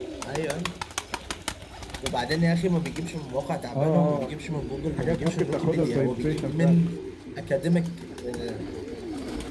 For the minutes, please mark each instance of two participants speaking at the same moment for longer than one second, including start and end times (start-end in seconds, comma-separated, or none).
5.0-6.8